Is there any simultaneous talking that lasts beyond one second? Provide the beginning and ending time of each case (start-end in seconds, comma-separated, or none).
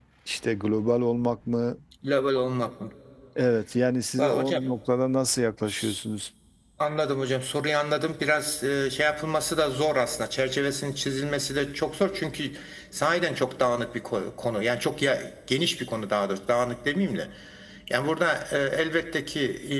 none